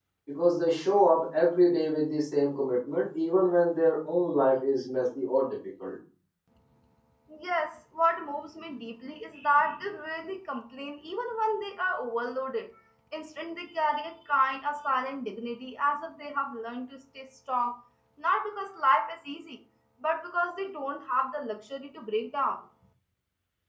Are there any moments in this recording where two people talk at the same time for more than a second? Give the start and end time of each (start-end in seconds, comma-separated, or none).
none